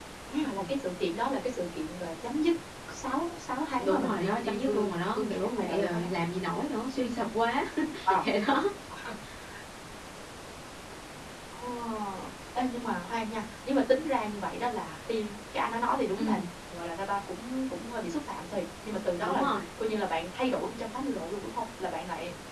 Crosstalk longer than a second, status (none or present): present